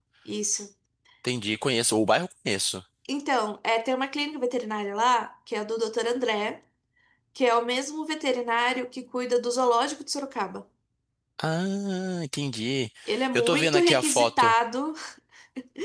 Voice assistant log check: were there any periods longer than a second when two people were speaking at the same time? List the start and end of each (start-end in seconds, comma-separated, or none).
13.3-14.5